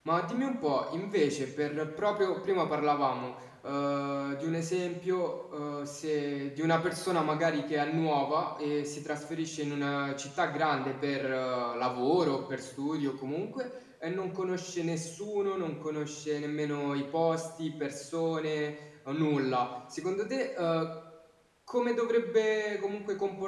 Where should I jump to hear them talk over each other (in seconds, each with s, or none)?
none